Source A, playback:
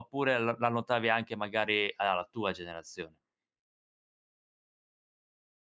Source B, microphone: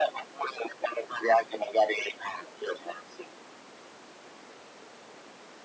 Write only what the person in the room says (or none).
none